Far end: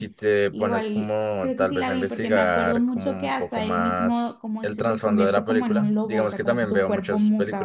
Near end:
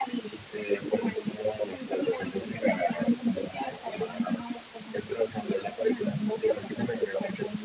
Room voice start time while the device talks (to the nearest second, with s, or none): none